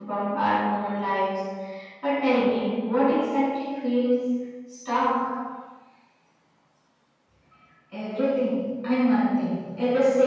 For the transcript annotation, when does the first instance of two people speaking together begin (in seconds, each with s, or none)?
none